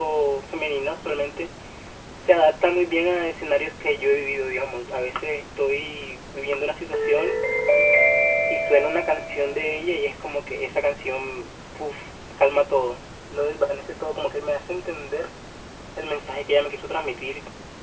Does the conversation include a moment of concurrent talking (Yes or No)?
No